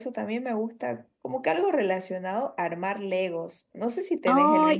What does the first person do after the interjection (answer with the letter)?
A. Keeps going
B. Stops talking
B